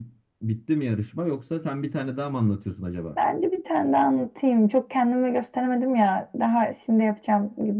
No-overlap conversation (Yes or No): Yes